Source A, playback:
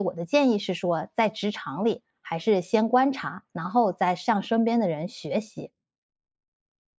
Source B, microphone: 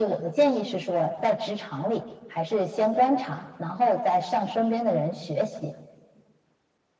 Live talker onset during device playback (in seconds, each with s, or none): none